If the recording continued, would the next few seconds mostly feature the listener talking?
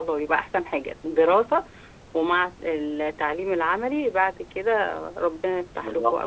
Yes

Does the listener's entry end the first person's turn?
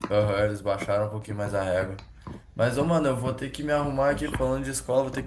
No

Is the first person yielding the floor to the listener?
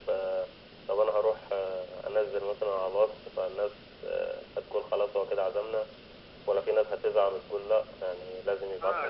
Yes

